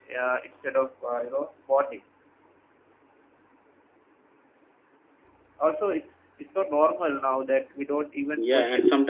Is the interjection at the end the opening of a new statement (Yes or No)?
Yes